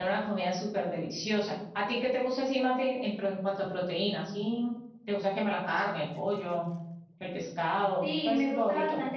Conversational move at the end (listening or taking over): taking over